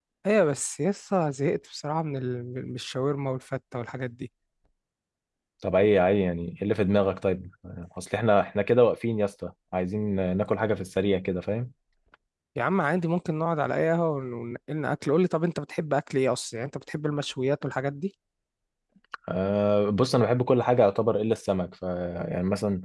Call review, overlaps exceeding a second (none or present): none